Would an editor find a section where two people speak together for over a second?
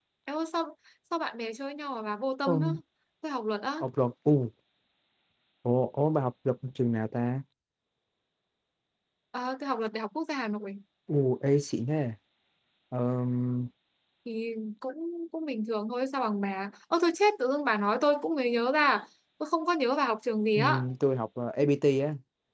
No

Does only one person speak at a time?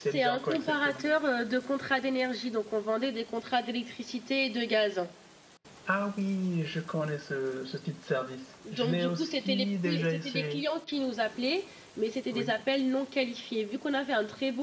No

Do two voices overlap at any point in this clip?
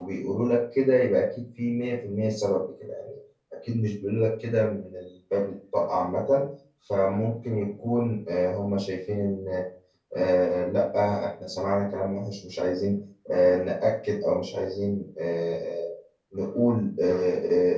No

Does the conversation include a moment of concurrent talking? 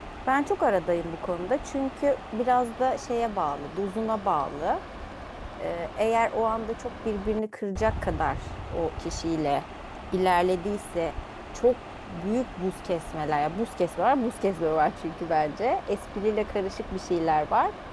No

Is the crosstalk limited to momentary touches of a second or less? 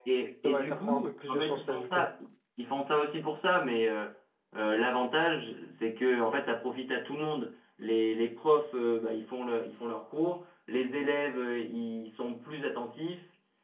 No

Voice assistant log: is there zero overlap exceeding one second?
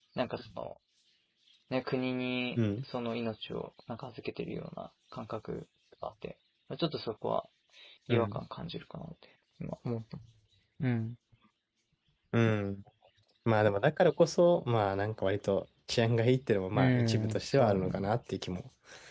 No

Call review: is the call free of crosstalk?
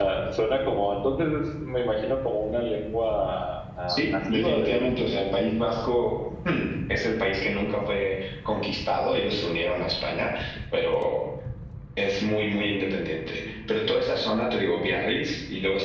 No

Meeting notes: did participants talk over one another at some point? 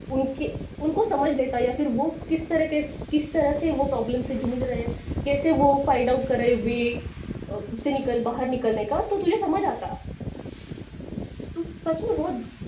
No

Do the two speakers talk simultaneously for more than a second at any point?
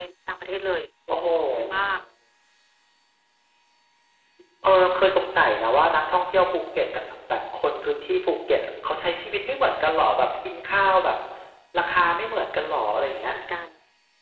No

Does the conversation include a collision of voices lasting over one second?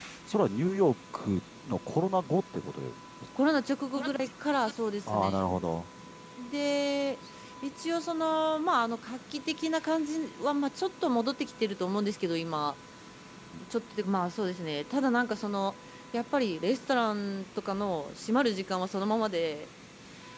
No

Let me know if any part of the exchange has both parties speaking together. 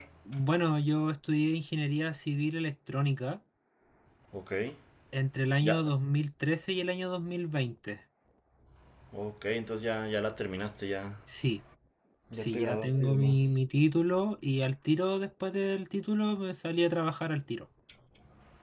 Yes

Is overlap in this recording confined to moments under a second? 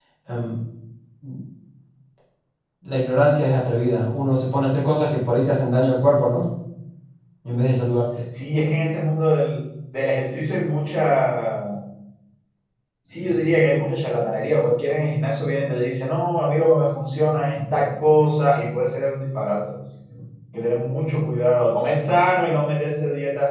Yes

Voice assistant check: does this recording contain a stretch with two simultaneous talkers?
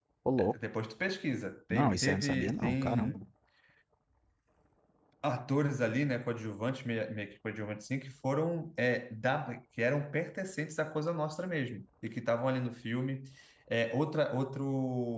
Yes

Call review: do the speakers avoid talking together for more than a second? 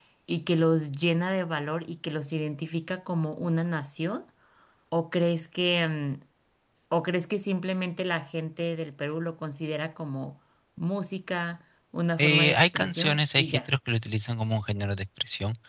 No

